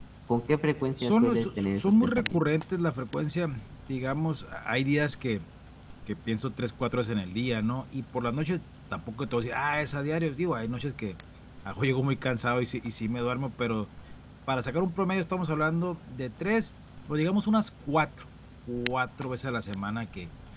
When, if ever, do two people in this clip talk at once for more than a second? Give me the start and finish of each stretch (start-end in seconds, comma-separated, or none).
1.0-2.4